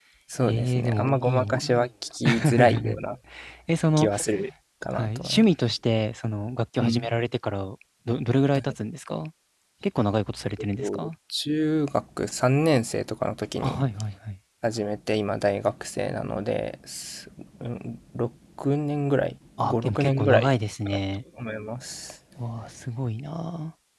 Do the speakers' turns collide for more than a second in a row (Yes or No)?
Yes